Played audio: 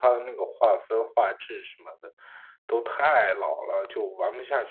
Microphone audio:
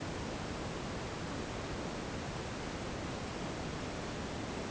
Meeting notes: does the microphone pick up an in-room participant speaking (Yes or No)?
No